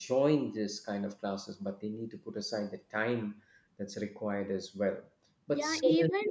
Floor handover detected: Yes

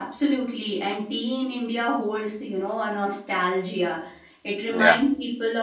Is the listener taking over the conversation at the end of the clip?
No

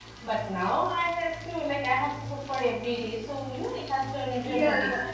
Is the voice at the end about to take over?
No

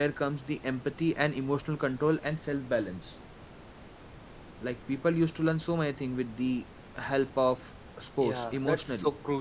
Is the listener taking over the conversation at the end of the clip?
Yes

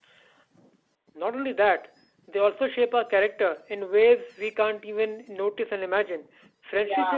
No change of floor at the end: Yes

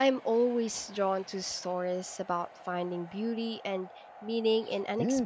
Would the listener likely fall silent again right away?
No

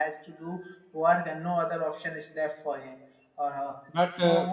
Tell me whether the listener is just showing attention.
Yes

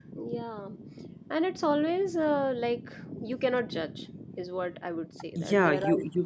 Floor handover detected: Yes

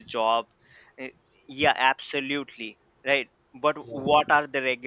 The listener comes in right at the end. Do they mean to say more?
No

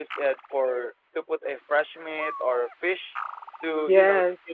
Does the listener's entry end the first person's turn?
No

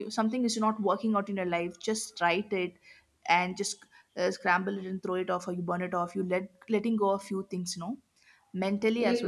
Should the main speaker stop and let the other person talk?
Yes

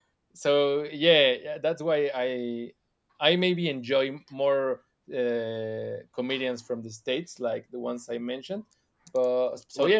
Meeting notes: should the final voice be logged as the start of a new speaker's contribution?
Yes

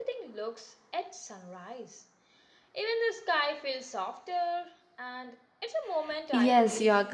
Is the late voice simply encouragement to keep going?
No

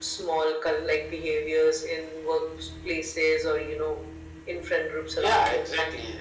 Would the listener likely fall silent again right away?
No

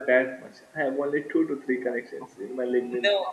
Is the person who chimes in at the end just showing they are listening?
No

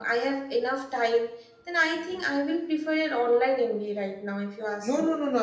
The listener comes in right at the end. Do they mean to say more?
Yes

